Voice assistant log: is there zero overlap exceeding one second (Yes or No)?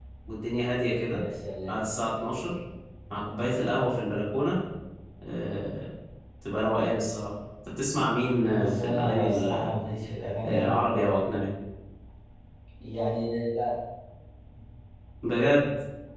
No